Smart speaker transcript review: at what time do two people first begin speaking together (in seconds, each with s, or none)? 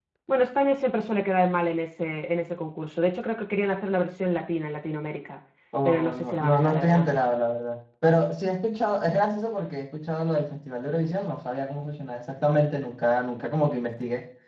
5.8 s